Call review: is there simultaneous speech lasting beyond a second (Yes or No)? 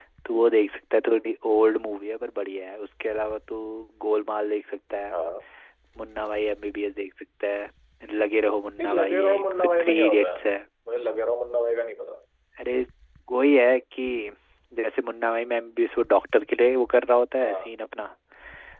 Yes